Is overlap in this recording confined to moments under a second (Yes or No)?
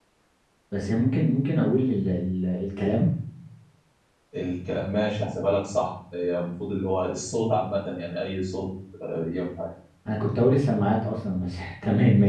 Yes